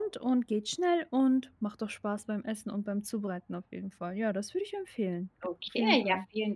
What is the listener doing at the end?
taking over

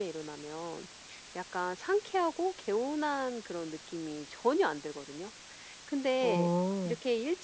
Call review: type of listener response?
listening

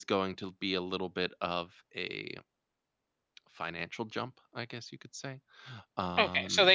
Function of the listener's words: taking over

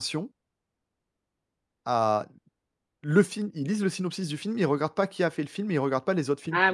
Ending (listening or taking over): taking over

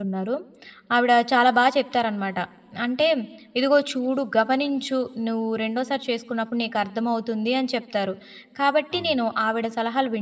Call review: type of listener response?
listening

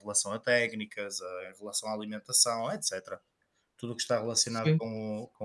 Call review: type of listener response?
listening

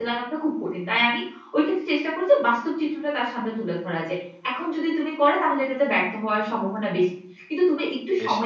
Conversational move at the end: listening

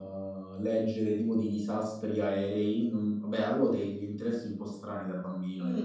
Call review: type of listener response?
taking over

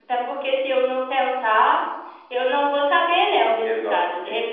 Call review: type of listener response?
listening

